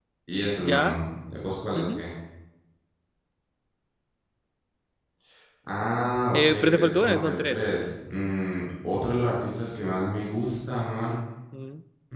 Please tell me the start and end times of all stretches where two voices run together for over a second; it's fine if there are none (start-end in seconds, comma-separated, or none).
6.3-7.6